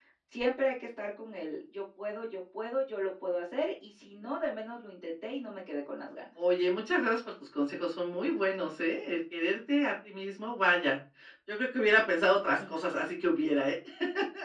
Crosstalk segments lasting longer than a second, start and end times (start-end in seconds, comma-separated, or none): none